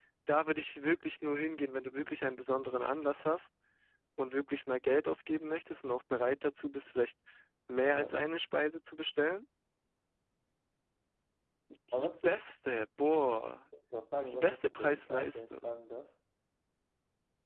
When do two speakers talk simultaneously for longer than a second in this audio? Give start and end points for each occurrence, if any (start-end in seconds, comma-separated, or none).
14.3-15.8